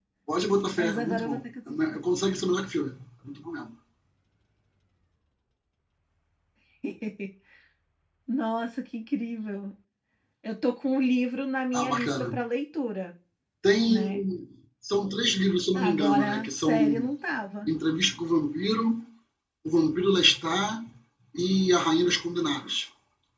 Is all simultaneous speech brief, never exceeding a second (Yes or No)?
No